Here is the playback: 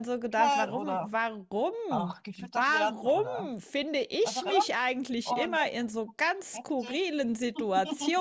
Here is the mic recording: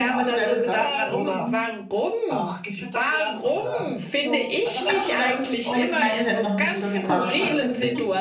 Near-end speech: present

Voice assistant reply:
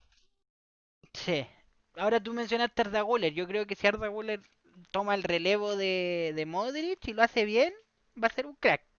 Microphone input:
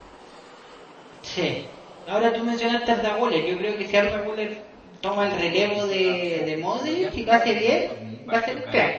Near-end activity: present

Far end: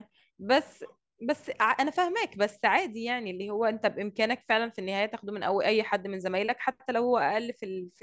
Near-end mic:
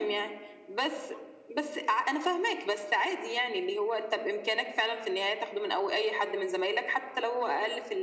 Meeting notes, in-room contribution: none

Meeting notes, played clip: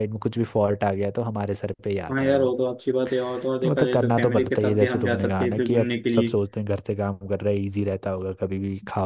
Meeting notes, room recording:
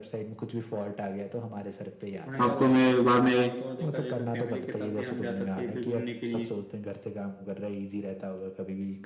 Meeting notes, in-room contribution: present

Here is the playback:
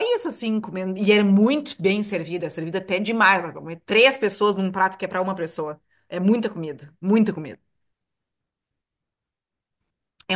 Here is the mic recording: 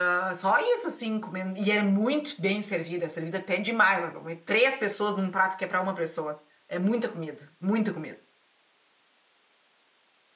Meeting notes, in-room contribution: none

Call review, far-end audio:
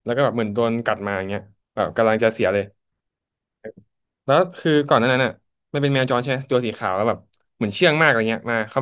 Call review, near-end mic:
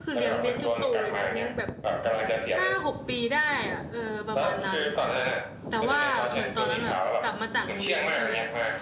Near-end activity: present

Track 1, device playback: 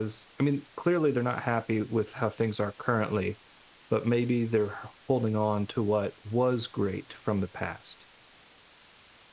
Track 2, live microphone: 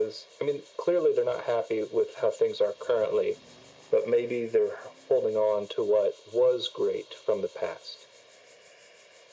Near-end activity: none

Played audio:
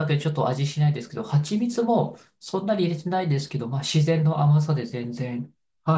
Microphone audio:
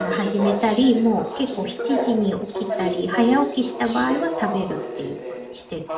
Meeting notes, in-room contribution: present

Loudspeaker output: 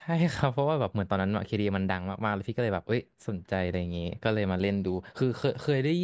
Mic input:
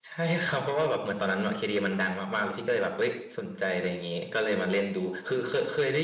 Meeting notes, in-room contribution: none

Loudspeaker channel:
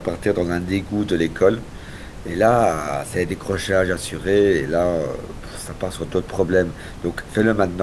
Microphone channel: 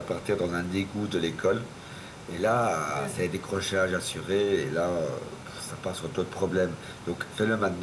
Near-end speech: present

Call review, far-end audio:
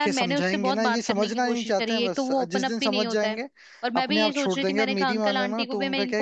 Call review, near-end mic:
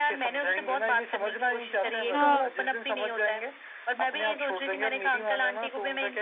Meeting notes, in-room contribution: present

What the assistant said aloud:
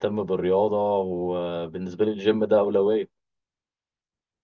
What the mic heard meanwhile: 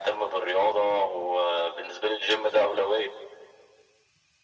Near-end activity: none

